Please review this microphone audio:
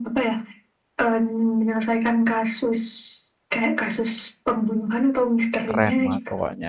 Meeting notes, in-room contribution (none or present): present